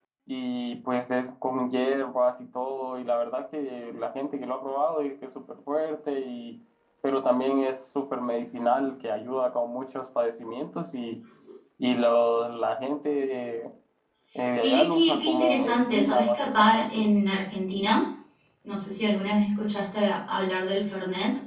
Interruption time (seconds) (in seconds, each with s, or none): 14.6 s